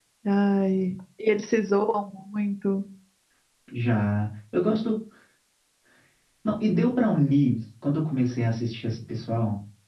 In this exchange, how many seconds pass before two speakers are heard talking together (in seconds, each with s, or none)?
none